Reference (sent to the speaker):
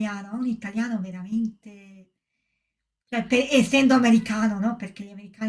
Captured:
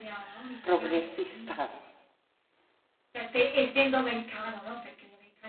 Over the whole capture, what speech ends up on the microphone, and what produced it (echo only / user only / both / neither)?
both